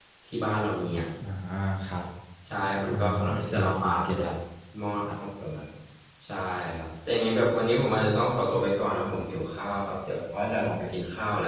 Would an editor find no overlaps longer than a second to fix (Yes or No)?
No